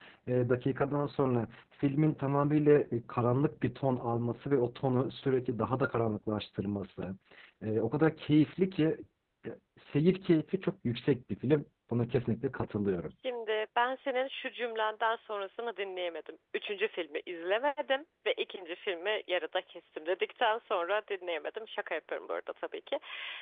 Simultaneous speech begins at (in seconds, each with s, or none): none